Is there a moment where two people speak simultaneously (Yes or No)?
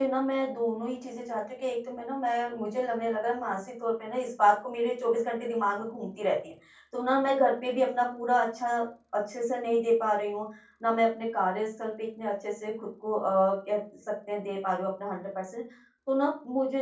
No